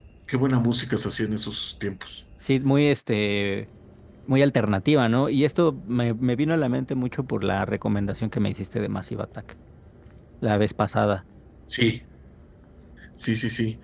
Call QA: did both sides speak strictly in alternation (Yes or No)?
Yes